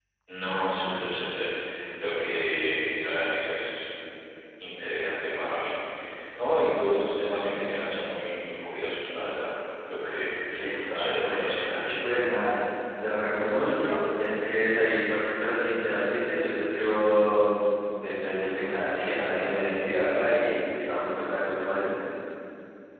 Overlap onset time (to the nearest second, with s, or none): 11 s